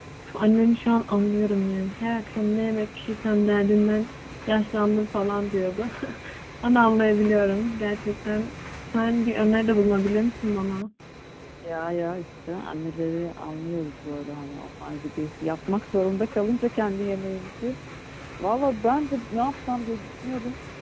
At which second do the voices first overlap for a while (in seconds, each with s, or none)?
none